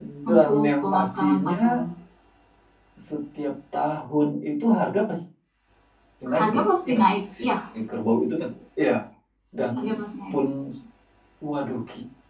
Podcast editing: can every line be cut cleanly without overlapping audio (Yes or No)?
No